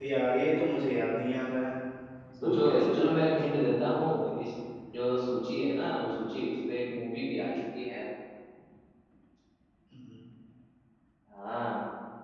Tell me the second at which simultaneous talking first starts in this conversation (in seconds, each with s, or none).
2.4 s